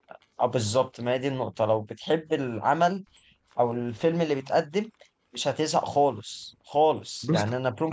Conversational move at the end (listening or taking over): listening